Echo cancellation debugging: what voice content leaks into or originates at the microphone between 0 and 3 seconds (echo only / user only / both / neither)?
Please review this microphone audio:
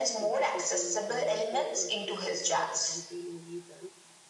both